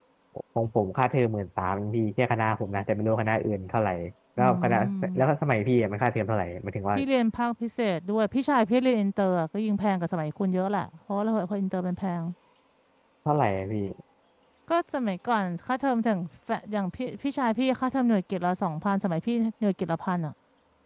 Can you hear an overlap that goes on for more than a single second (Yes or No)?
No